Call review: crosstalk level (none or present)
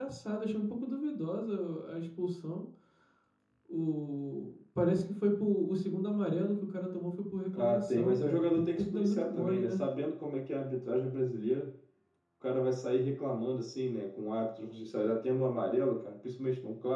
present